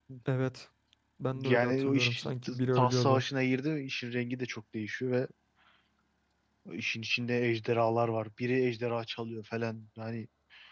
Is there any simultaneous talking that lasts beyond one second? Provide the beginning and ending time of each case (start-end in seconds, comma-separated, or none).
1.4-3.2